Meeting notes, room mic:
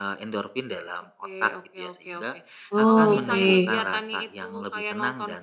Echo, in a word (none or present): present